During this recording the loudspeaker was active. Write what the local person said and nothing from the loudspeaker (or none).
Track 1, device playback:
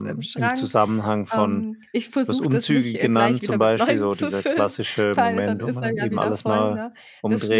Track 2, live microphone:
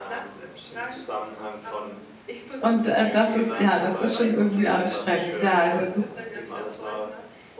Und, äh, das ist ja, das ist schon irgendwie anstrengend. Ja, also das